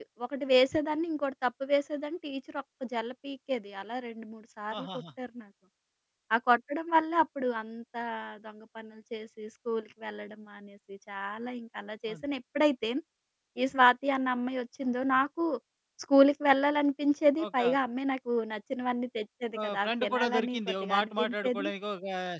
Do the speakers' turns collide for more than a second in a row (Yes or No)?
Yes